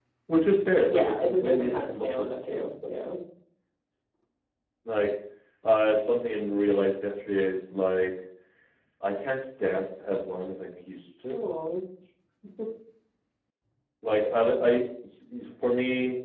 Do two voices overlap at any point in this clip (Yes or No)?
Yes